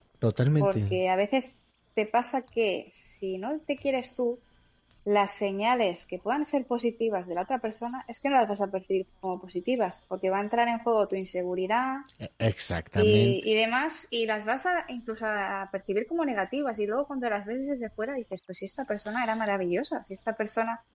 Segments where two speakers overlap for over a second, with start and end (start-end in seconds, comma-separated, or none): none